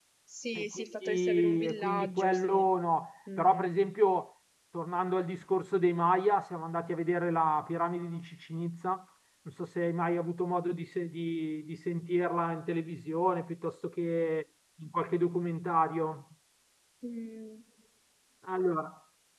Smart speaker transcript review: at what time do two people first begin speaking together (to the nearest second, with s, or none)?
1 s